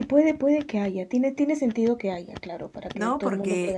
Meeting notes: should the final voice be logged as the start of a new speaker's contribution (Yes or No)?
Yes